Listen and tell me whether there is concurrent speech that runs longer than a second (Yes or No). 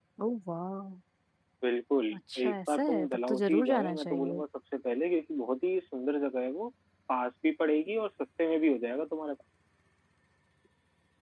Yes